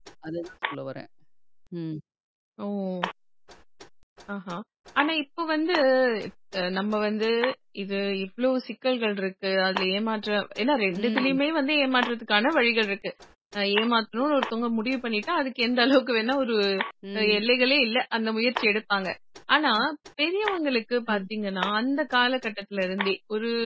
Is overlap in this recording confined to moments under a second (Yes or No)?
Yes